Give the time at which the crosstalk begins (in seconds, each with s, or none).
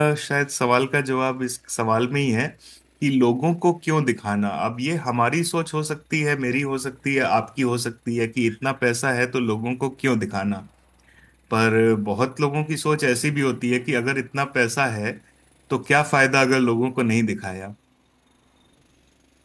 none